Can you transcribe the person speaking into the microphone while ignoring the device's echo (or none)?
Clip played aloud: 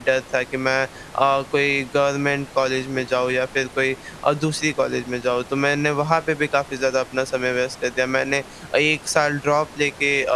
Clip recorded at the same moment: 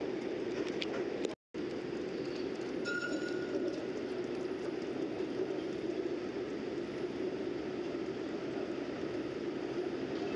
none